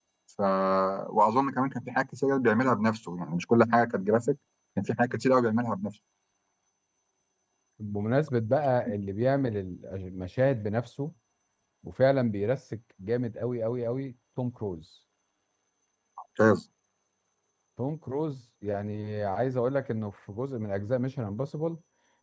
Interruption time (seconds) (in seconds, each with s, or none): none